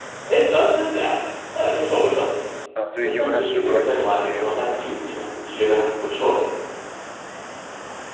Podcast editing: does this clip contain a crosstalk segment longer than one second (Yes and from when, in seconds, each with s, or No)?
Yes, from 3.0 s